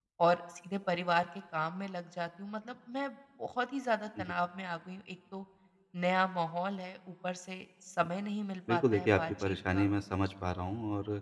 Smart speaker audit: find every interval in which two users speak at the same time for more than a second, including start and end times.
8.7-9.9

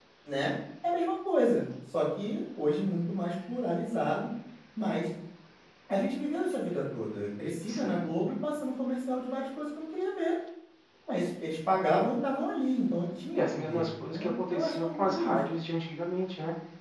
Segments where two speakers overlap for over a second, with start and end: 13.3-15.4

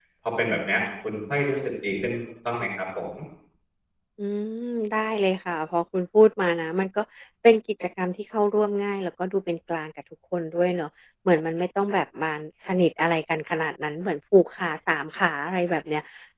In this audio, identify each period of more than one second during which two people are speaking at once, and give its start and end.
none

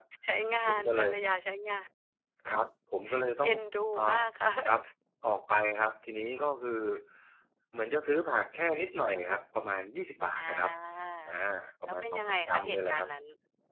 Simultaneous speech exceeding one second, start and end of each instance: 11.8-13.1

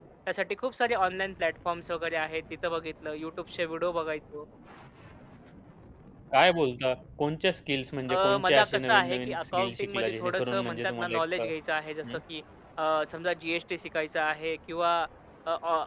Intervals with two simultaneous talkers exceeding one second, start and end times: 8.1-11.4

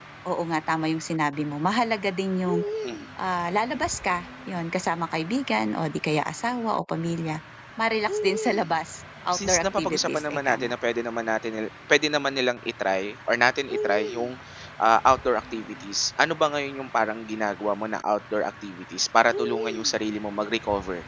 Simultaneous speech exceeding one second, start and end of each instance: 9.4-10.7

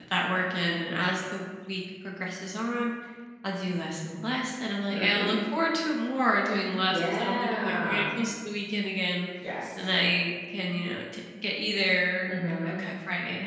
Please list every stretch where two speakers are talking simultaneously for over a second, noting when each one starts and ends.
6.8-8.1

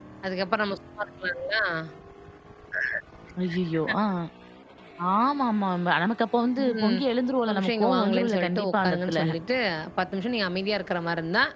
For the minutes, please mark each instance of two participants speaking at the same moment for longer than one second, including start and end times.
7.5-9.2

